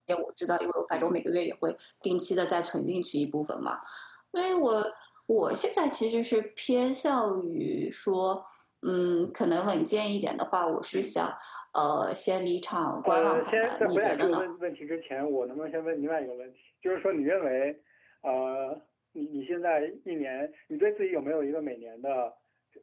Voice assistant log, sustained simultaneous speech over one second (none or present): present